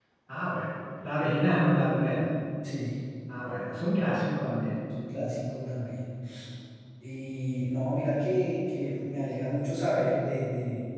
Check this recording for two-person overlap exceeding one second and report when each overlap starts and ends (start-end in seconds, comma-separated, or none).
none